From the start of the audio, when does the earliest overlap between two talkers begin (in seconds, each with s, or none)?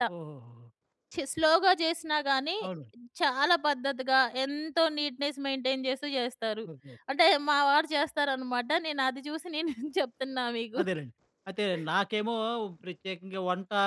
none